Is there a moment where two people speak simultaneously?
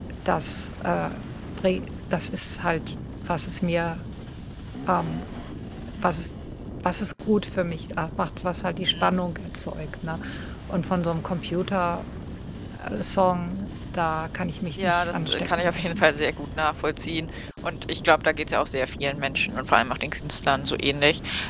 Yes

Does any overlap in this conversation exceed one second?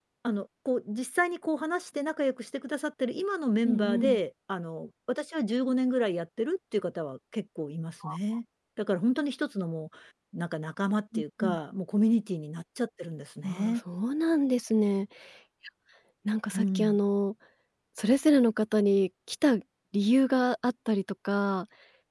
No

